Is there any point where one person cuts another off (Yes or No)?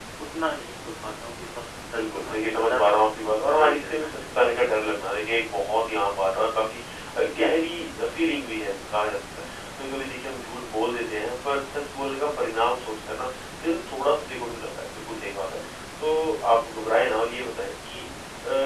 Yes